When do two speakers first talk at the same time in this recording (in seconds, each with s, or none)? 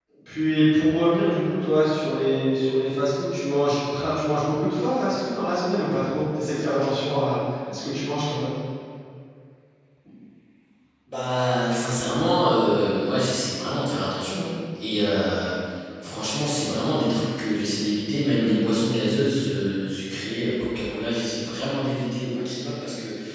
none